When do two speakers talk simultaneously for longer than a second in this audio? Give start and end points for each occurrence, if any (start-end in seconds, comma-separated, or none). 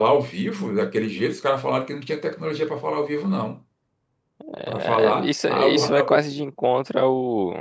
4.8-6.4